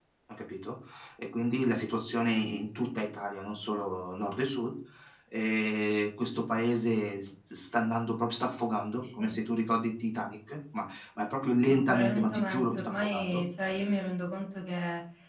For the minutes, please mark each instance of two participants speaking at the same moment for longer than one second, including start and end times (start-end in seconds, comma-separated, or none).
11.7-13.4